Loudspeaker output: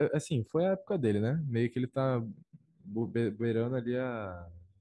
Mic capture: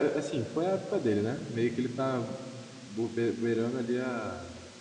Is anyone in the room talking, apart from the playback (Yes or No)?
No